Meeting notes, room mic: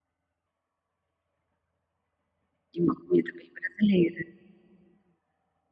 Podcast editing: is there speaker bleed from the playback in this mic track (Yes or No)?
No